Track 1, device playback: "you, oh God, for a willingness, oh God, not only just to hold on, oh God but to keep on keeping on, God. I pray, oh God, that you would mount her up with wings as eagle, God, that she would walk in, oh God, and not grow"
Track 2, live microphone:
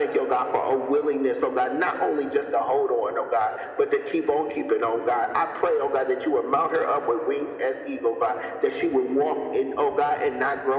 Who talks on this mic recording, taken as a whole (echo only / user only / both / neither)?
echo only